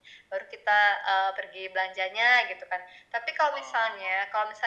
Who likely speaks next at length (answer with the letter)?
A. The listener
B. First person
B